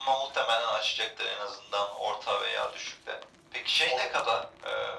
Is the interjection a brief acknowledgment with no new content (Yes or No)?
Yes